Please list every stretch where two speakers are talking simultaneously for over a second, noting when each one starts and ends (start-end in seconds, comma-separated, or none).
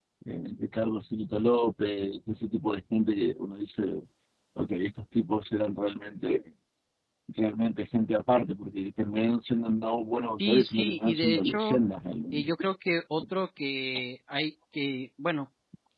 10.4-11.8